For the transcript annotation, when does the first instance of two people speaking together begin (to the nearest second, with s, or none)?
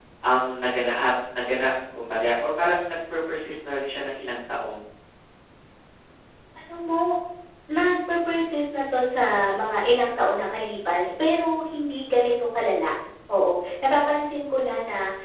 none